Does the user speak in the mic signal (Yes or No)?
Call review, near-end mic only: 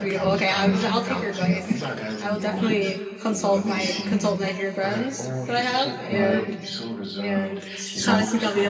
Yes